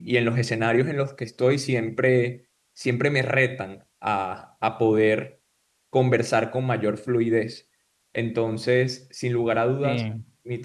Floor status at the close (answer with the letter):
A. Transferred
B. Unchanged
B